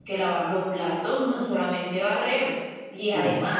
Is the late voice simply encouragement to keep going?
Yes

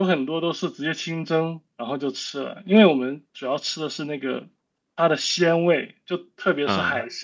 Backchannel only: Yes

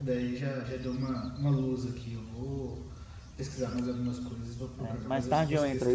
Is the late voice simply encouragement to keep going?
No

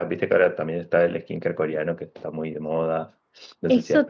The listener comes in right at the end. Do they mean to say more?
Yes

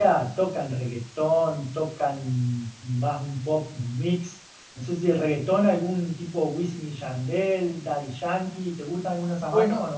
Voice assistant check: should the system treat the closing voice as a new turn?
Yes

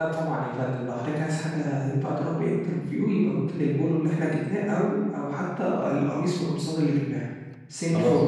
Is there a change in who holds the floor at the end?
Yes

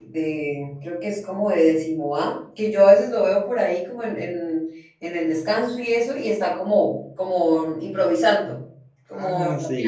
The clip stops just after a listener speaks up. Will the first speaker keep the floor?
No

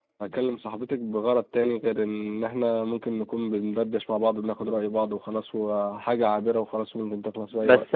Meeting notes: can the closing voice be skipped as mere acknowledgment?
No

